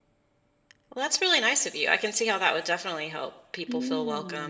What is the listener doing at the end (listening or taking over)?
taking over